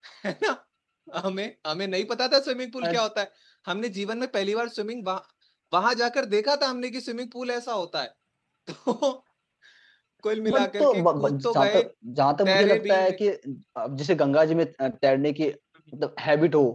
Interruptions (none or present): present